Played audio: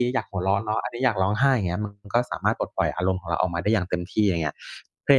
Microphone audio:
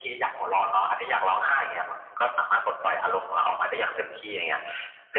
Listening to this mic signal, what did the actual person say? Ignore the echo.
none

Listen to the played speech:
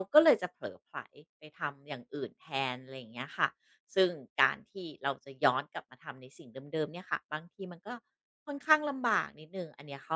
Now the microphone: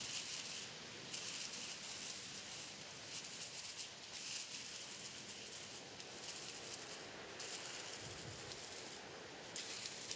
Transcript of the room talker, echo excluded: none

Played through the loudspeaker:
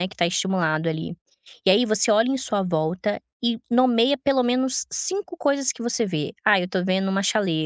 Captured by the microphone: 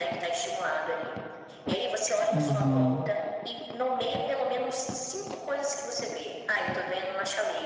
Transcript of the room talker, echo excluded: Uhum,

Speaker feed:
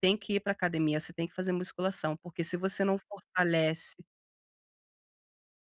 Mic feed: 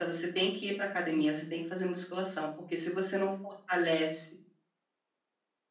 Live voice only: Aham.

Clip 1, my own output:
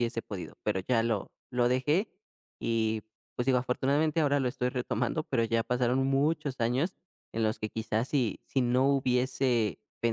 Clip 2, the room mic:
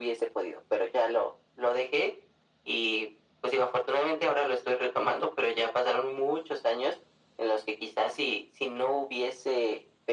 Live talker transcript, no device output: none

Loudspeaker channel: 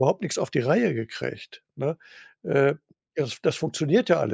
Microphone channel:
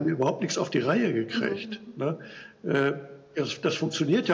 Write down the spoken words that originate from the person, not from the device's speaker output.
Mhm.

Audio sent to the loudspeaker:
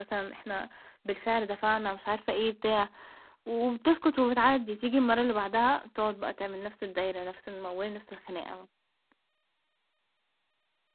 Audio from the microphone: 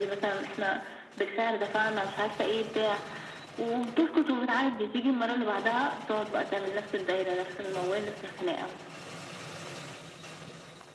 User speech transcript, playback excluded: none

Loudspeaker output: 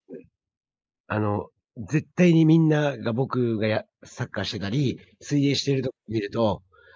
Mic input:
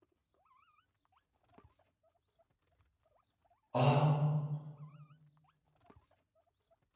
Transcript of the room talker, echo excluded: ああ。

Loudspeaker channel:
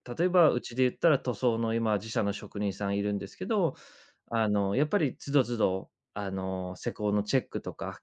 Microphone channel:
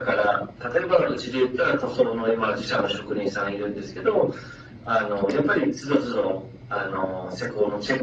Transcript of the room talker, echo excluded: none

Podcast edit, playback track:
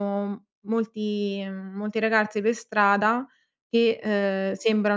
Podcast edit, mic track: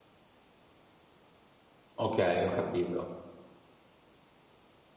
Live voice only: Okay, ho capito.

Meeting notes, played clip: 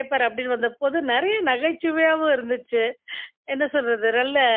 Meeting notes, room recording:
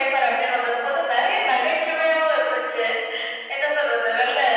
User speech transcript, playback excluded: none

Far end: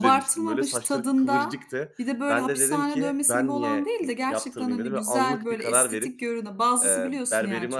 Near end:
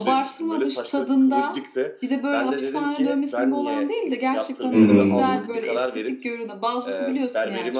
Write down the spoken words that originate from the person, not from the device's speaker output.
Hı hı.

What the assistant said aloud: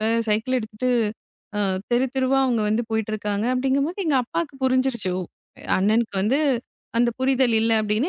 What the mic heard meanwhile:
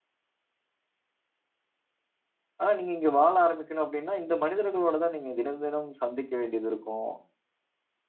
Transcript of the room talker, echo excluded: ஆனா, நீங்க இங்க வாழ ஆரம்பிக்கணும் அப்படின்னா, இந்த மனிதர்களோட தான் நீங்க தினம் தினம் சந்திக்க வேண்டியது இருக்கும்.

